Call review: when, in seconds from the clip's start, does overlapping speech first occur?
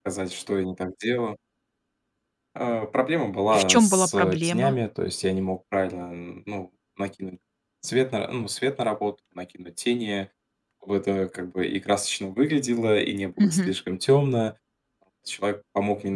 3.5 s

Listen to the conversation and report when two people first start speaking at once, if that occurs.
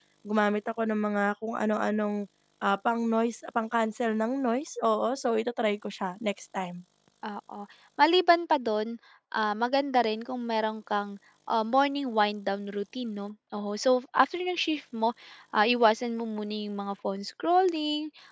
none

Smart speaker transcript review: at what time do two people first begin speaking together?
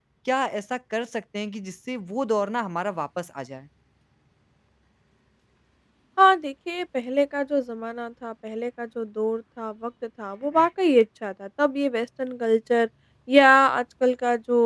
none

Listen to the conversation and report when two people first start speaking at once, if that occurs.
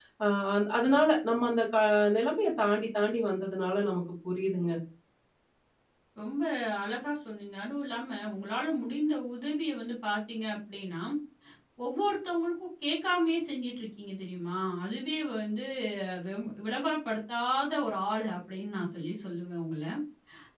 none

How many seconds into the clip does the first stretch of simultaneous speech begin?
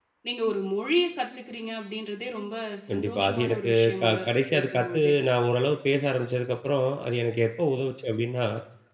2.9 s

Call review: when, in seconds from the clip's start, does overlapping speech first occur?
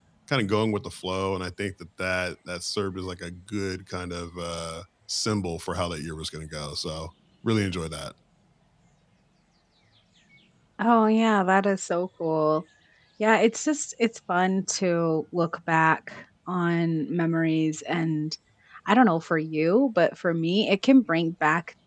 none

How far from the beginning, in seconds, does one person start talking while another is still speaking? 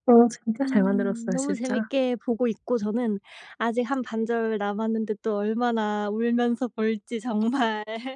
0.6 s

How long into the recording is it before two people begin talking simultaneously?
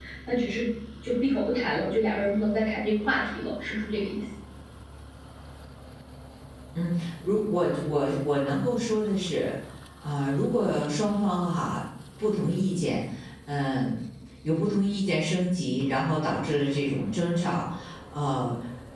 none

